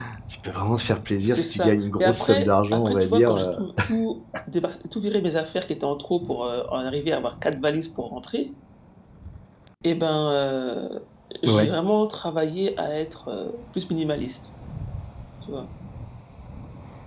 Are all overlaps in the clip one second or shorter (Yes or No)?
No